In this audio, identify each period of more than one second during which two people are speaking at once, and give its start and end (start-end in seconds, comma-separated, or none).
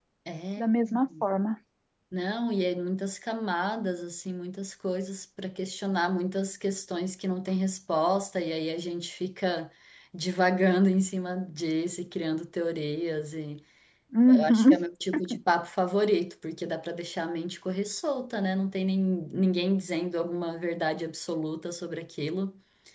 none